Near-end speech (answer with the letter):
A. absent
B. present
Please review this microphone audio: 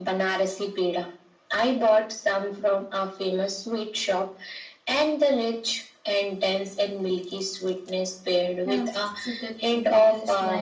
B